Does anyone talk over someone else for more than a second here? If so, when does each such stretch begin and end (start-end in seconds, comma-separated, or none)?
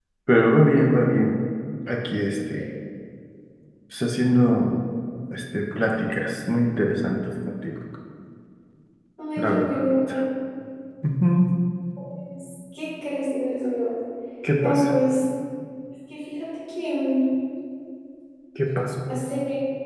none